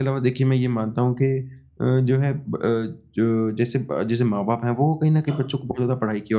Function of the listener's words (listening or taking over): listening